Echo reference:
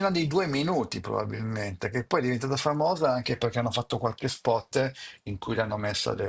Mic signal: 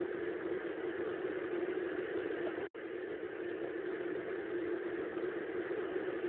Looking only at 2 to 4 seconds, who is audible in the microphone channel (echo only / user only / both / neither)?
neither